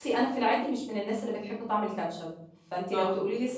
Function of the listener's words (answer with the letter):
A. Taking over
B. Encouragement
B